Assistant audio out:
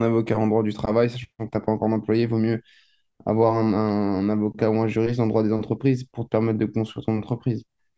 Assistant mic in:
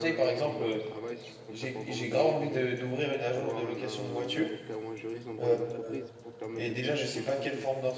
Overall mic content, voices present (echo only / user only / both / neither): both